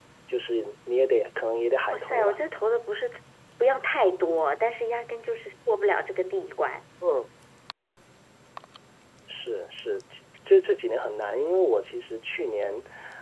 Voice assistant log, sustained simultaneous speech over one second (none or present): none